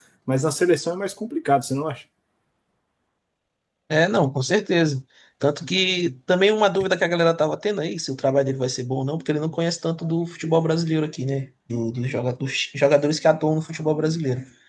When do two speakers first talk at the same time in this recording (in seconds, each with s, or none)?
none